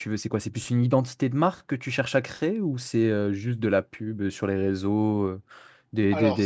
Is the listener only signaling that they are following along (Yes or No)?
No